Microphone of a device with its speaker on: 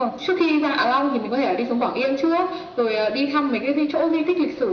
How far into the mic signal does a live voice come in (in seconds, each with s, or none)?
none